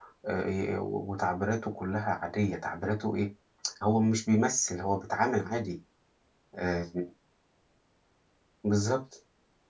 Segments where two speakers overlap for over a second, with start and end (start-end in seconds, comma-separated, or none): none